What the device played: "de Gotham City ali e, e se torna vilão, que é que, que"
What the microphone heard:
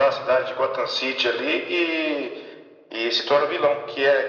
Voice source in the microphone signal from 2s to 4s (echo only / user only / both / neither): echo only